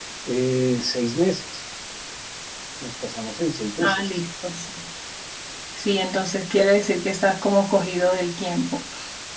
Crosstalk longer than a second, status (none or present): none